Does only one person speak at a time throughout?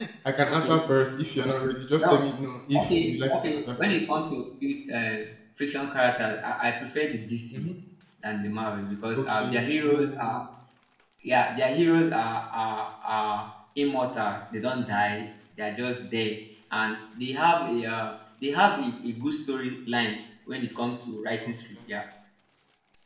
No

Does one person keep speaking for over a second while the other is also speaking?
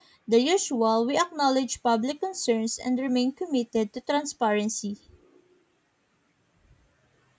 No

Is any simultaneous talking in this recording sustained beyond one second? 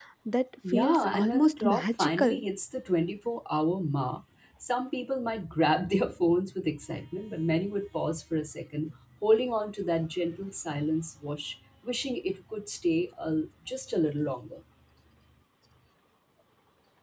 Yes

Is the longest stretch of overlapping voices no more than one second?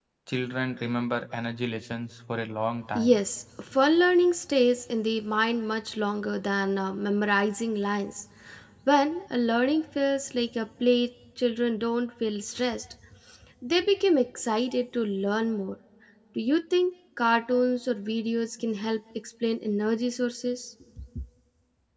Yes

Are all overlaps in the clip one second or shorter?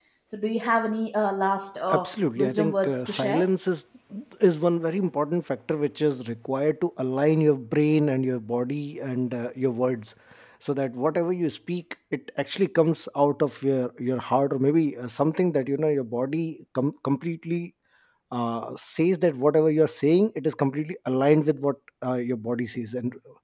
No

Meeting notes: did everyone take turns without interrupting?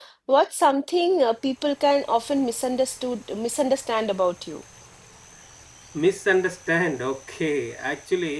Yes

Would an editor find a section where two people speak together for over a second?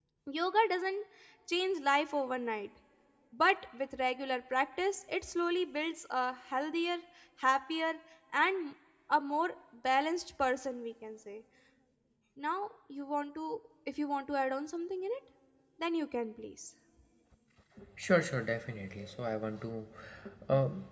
No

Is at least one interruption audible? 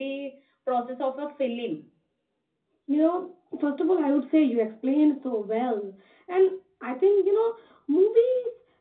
No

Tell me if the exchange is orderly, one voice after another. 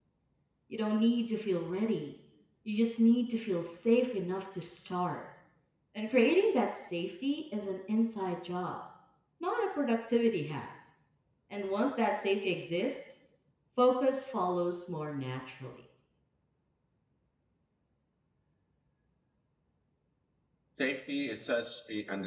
Yes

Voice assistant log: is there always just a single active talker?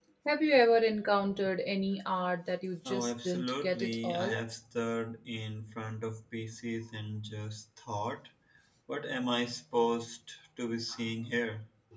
No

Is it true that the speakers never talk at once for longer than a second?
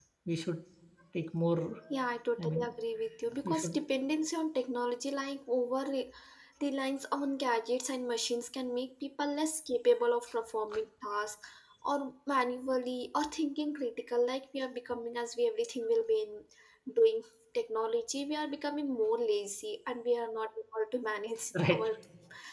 Yes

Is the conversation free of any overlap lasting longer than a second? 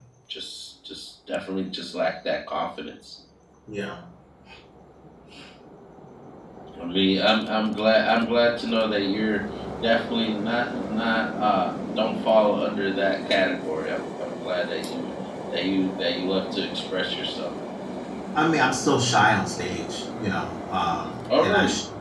Yes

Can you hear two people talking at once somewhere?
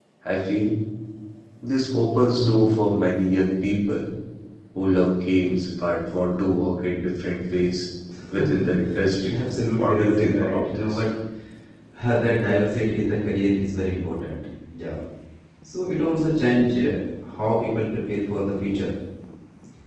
Yes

